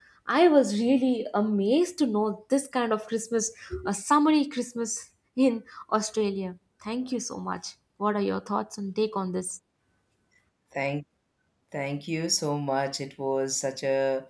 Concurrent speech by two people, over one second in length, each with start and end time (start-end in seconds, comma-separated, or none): none